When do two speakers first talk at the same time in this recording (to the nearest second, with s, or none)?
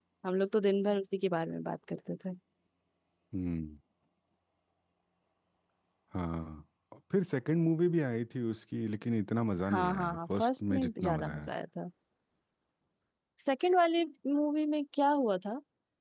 10 s